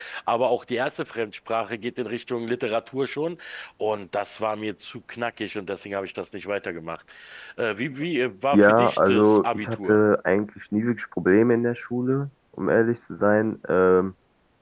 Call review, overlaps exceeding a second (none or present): present